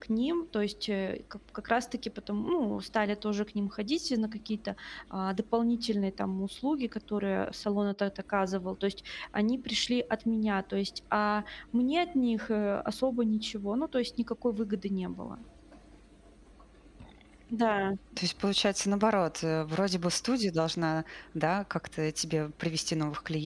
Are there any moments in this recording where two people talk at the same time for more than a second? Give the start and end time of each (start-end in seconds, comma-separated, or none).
none